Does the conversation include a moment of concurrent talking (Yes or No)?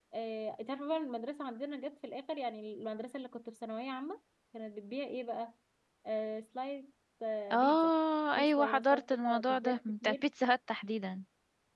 Yes